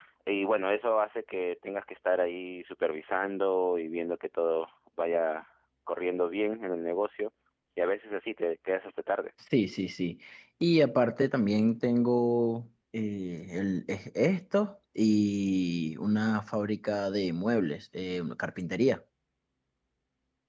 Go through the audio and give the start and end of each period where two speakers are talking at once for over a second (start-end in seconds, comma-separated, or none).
none